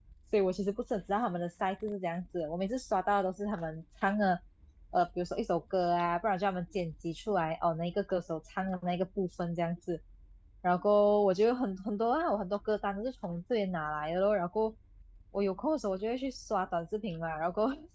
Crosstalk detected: No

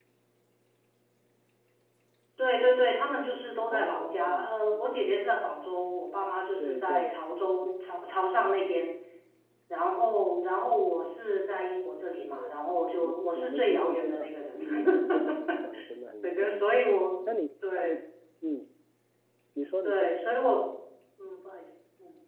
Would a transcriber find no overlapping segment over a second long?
No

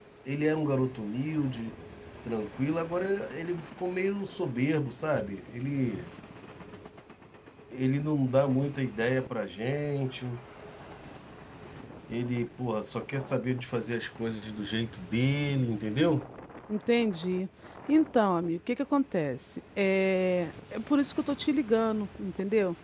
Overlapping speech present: No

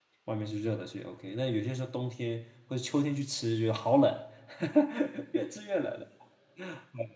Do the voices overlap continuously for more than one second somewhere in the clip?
No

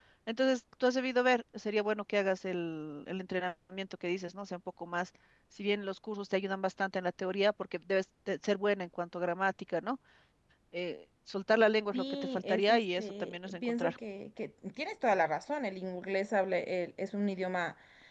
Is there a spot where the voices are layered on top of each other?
Yes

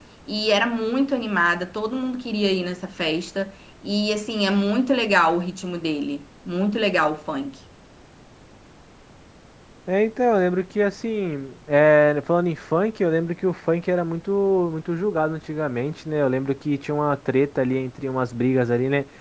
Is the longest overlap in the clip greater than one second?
No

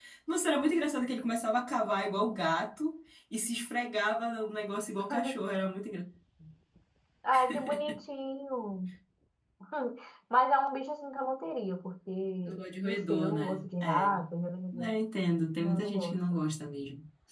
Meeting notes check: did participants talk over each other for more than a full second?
Yes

